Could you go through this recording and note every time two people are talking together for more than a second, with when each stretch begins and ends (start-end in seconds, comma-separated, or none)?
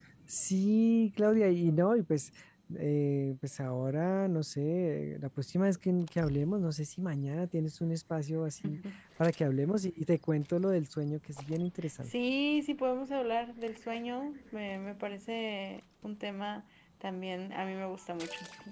none